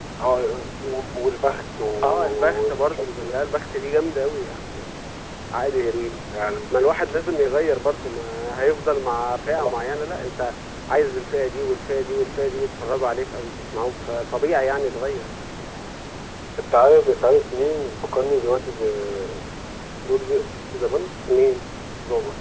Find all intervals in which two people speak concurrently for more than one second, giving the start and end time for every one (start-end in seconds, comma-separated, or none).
2.0-3.4